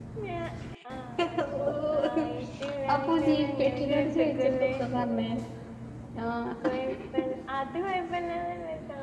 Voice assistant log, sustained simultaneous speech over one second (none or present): present